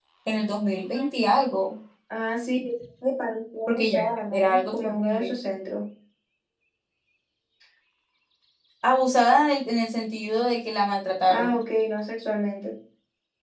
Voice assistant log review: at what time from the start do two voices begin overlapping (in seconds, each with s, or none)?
3.7 s